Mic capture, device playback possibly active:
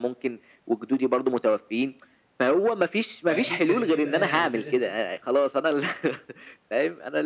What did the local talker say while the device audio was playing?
وأكيد كان في بقى يعني لازم

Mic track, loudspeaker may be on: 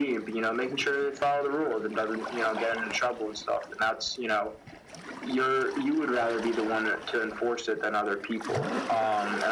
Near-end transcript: none

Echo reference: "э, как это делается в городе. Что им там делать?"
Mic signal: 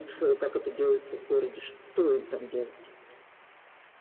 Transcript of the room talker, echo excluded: none

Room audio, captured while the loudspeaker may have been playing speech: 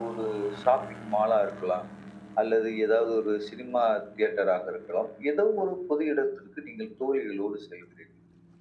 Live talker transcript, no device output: none

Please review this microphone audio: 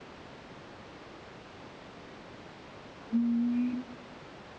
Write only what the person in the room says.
อืม

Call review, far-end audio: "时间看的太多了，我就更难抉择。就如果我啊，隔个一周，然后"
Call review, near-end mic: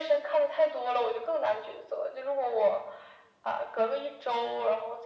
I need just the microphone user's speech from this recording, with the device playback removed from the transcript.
none

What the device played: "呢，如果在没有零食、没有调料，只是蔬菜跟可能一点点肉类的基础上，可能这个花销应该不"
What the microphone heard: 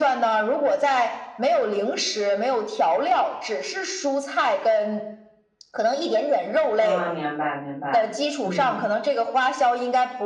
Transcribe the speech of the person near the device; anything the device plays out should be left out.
啊，明白明白，嗯，

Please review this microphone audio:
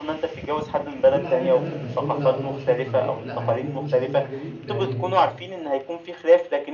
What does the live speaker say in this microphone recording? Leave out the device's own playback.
كل حاجة تمام، بس هم لأ برضه مش مقتنعين، لأ عايزين يكونوا شايفين الحاجة دي بعينيهم.

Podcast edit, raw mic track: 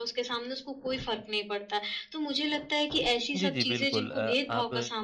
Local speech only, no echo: जी, जी, बिल्कुल अ, आप

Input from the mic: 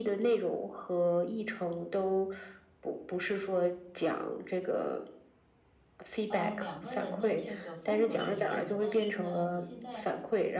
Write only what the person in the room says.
呃，两个人的这个风格是一样的，但是呢，你现在，

